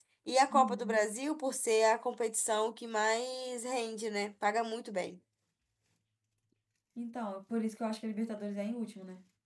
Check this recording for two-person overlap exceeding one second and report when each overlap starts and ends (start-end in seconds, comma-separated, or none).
none